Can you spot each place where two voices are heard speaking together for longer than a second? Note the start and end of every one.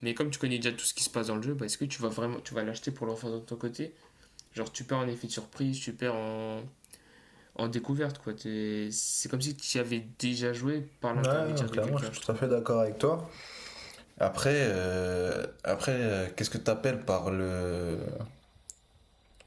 11.2-12.4

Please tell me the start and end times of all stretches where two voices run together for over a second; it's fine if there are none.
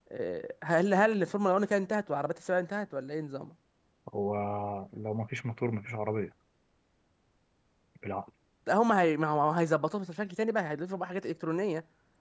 none

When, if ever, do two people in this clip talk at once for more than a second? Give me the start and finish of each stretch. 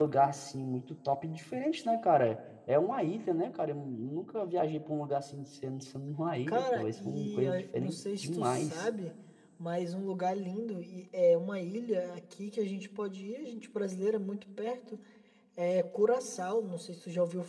6.5-8.8

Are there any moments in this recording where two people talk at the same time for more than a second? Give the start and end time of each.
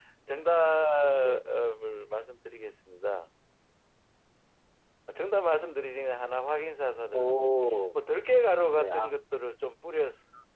none

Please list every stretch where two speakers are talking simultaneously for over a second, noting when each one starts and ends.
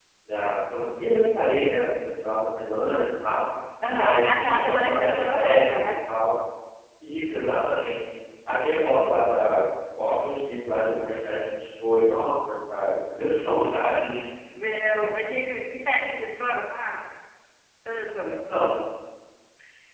3.9-5.9

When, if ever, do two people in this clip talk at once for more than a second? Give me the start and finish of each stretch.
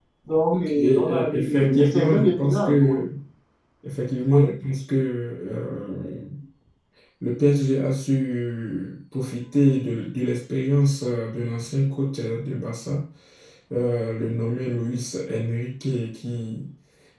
0.5-3.0

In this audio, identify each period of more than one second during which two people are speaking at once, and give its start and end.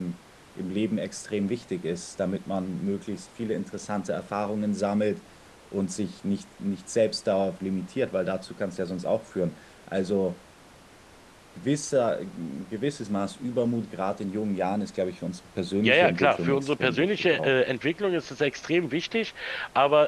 15.8-17.5

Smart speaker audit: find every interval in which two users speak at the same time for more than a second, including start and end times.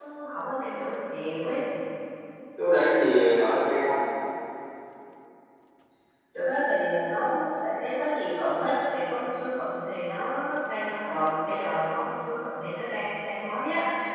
none

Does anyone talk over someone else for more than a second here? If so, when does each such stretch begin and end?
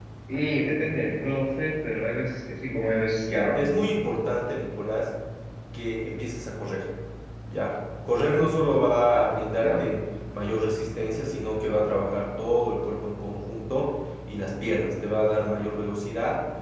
none

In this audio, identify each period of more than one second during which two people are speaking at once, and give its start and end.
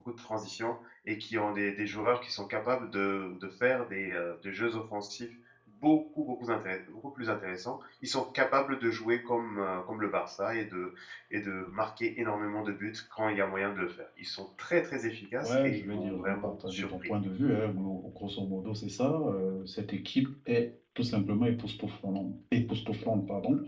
15.4-17.1

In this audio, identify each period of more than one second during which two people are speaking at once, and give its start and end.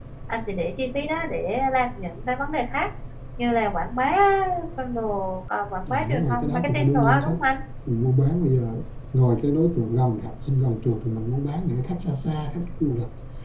5.9-7.3

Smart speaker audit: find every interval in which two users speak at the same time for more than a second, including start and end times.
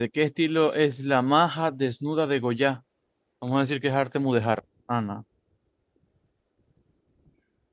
none

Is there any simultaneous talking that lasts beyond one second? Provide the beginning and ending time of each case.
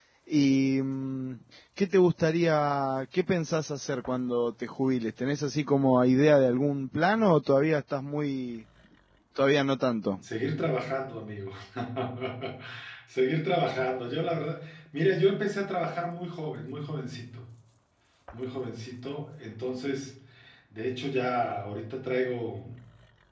none

